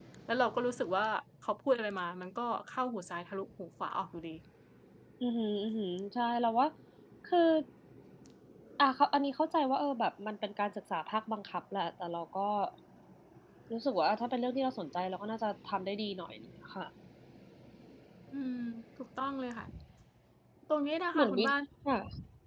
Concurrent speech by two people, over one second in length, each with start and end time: none

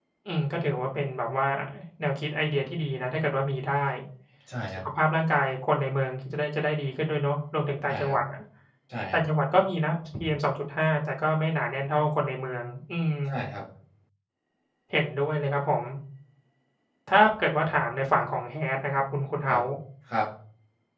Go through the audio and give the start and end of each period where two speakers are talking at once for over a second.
none

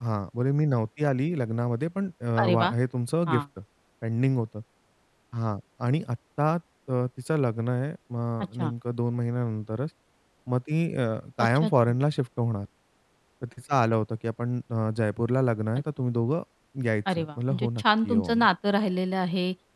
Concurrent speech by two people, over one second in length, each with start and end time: 17.1-18.5

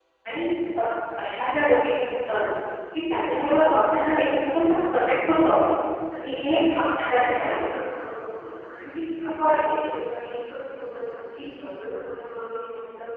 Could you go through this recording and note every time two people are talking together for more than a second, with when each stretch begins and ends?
6.2-7.5

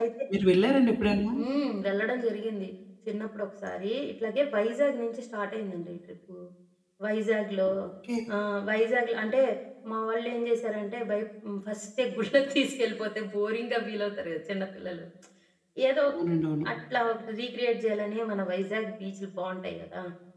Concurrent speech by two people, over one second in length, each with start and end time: none

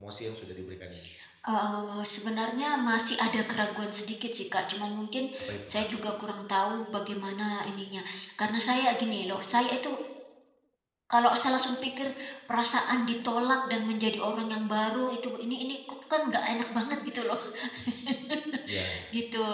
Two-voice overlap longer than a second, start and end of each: none

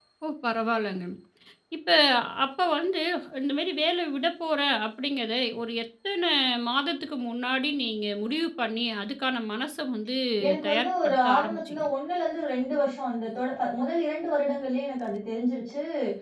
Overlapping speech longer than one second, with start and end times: 10.7-11.9

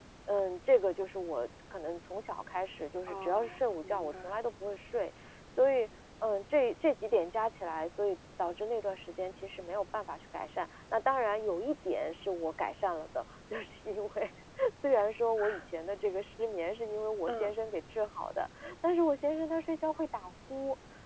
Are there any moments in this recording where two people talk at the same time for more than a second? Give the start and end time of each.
3.1-4.3

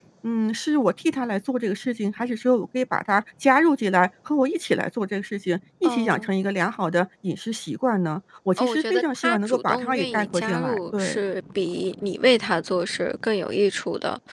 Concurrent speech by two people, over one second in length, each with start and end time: 8.6-11.2

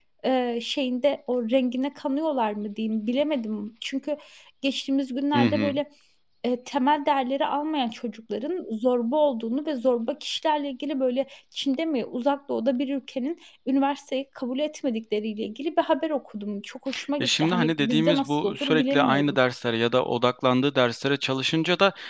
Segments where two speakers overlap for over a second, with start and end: 17.2-19.4

